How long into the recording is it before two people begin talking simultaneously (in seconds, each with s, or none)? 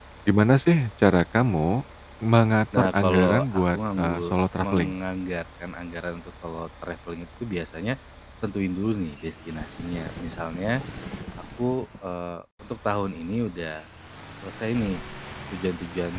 2.8 s